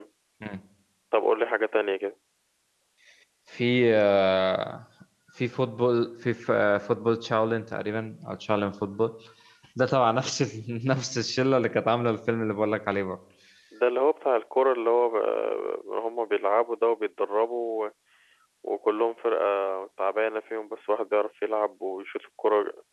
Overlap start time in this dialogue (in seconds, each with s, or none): none